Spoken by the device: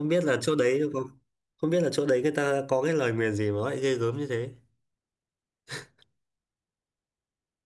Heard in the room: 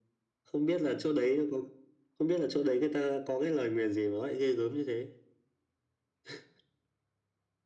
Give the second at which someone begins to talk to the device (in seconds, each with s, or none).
none